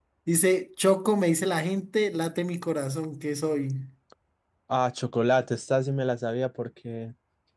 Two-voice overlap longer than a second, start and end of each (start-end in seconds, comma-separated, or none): none